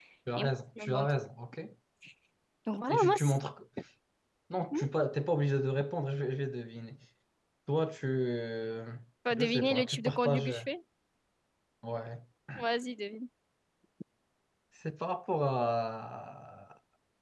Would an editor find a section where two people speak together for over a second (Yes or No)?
Yes